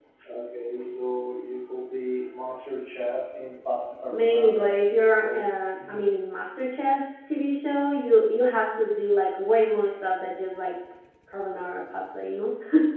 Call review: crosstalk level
present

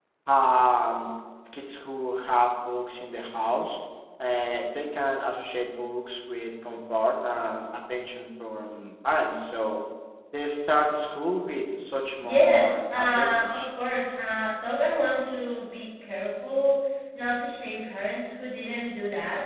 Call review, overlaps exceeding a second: present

